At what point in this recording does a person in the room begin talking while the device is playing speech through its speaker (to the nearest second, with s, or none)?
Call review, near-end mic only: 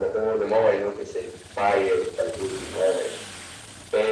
none